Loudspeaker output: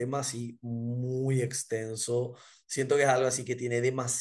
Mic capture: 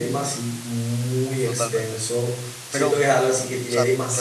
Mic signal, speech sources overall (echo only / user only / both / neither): both